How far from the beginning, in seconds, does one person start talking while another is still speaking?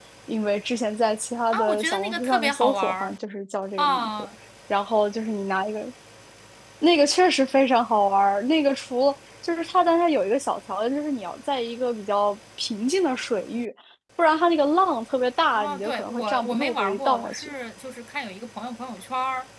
1.5 s

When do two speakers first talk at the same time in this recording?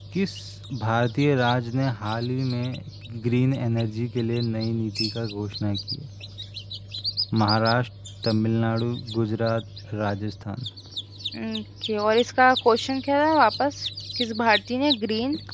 none

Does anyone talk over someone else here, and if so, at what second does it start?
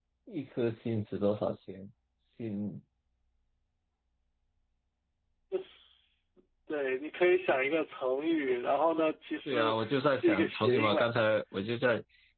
9.5 s

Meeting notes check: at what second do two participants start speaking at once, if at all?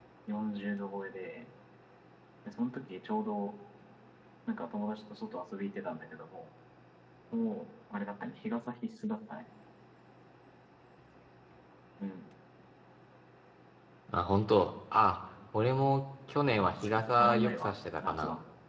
16.5 s

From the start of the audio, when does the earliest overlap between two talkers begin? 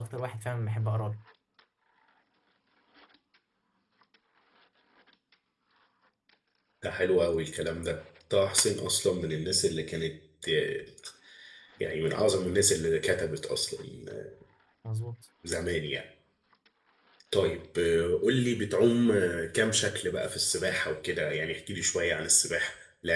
none

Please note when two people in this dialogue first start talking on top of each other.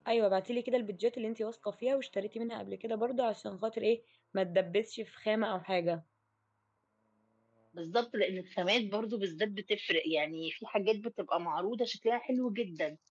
none

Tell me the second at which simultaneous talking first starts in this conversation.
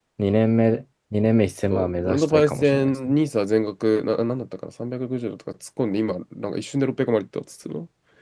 1.7 s

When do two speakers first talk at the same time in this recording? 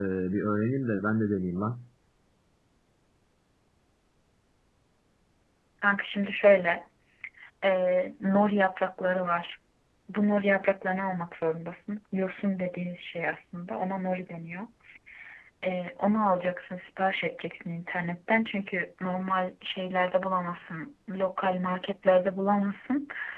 none

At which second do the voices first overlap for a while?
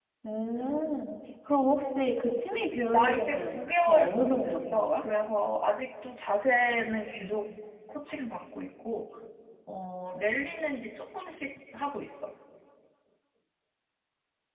2.9 s

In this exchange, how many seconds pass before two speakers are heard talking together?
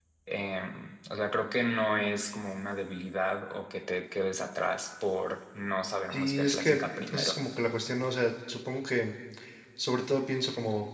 6.1 s

